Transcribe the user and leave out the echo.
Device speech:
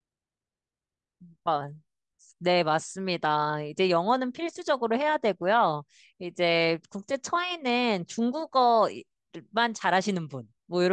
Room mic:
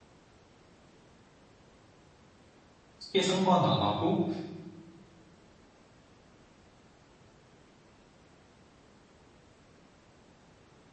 크게 상관 안 하고,

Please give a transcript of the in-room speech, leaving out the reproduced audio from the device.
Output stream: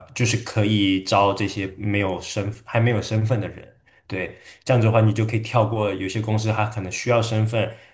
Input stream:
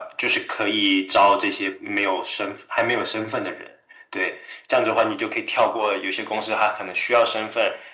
none

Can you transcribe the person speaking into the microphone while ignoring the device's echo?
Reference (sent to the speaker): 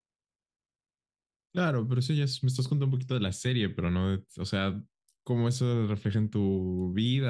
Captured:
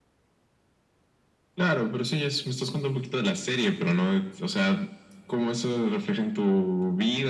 none

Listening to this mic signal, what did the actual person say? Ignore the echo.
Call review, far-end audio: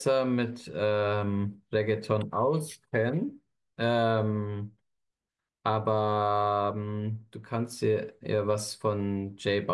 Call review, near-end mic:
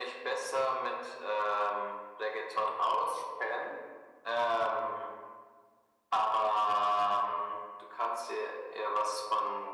none

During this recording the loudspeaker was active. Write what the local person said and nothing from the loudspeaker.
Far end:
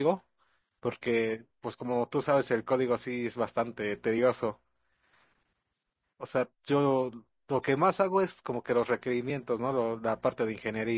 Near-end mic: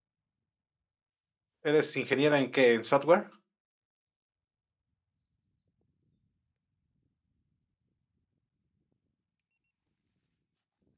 ¿Eres ingeniera en qué? ¿En software?

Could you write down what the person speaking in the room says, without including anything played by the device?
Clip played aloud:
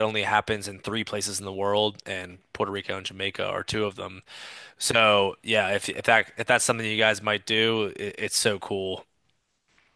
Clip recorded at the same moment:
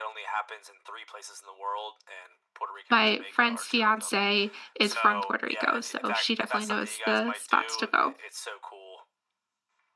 my friend's fiance is from Puerto Rico, so she definitely knows the spots to go.

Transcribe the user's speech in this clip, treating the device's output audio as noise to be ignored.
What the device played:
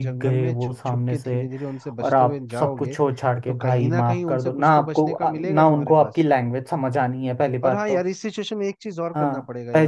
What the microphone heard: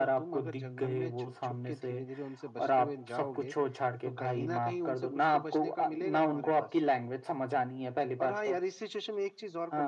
none

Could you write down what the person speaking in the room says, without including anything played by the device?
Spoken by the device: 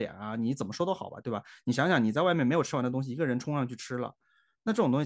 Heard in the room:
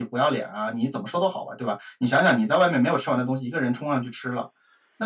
none

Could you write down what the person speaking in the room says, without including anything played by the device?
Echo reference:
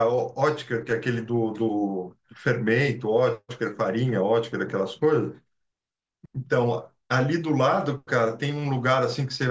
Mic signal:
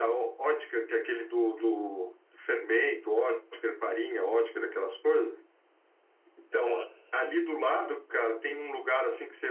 Aham.

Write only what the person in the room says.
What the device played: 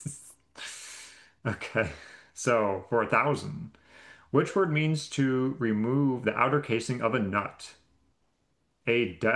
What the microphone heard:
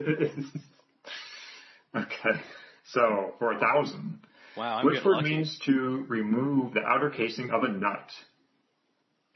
Wow, I'm getting lucky.

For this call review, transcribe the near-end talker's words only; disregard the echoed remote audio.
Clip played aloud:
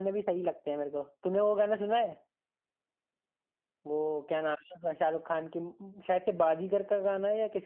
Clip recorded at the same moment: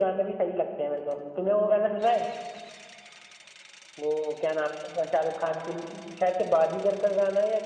none

